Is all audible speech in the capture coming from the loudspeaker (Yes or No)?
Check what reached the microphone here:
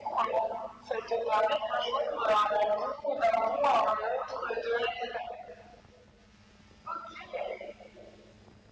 Yes